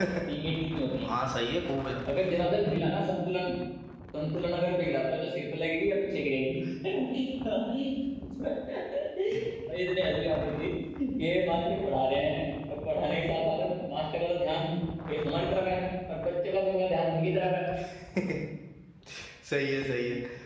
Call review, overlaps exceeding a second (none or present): none